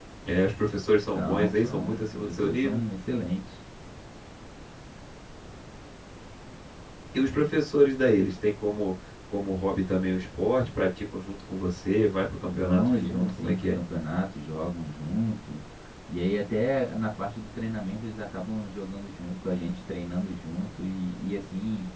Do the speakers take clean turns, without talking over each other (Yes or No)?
No